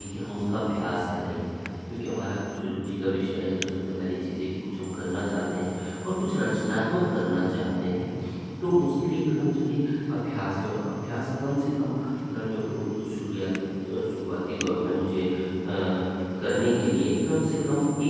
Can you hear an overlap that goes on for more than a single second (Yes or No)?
No